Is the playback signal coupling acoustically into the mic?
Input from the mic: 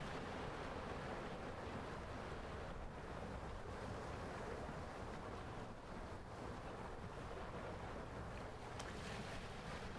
No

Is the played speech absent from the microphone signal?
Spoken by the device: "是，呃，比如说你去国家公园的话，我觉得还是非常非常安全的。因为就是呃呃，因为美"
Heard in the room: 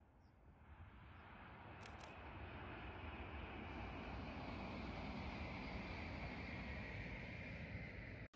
Yes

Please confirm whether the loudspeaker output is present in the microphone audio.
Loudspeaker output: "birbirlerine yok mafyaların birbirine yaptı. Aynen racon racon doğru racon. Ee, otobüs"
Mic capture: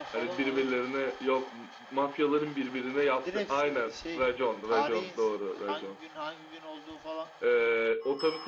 Yes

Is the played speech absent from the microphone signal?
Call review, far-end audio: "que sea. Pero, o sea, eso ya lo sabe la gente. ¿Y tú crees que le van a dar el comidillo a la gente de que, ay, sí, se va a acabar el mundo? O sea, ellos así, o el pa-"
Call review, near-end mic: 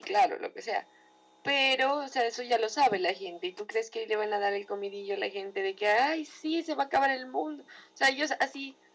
No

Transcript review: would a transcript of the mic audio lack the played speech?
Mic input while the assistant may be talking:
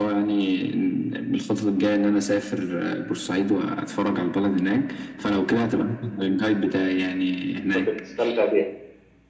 No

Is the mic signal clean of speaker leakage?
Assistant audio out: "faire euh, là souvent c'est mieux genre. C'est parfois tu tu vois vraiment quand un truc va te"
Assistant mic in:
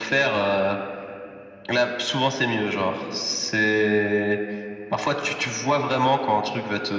No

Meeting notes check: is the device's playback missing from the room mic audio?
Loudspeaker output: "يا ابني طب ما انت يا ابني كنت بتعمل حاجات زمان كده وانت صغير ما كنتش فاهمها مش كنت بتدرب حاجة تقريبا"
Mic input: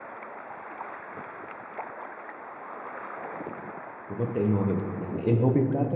Yes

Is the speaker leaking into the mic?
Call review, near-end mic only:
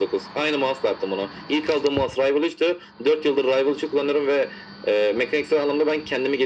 Yes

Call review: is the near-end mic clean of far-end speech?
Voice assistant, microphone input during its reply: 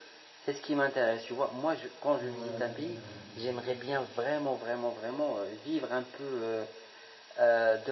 No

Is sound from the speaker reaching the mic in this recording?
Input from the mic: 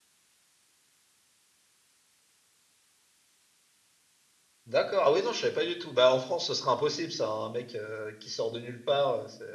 No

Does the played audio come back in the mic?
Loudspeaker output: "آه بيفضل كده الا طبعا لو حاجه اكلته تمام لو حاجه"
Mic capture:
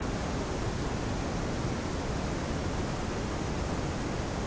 No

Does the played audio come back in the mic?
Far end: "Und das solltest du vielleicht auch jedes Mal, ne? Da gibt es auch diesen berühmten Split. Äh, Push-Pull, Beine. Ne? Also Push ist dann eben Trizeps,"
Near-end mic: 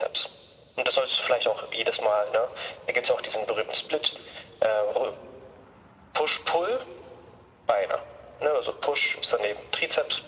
Yes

